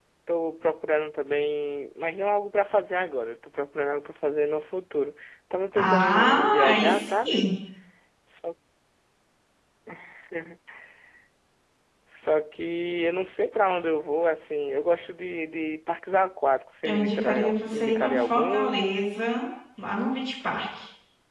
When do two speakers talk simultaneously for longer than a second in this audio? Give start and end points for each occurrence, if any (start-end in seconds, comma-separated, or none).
5.7-7.4, 16.8-18.8